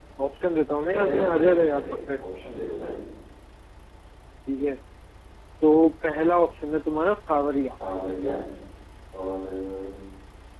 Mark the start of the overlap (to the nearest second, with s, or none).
1 s